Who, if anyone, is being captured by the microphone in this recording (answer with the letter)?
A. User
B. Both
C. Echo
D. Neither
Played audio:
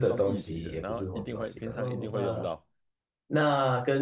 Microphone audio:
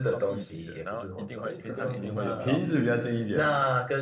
B